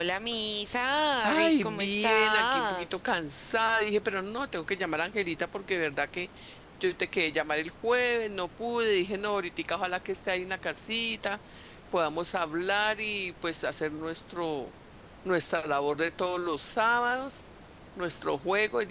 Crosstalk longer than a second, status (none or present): present